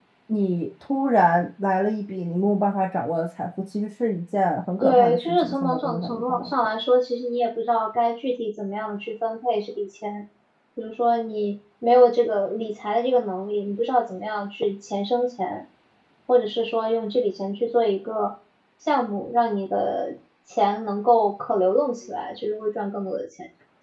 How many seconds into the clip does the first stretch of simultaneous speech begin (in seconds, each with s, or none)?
4.8 s